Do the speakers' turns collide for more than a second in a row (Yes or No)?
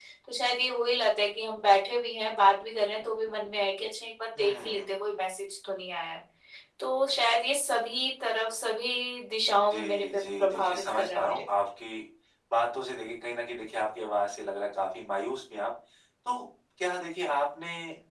Yes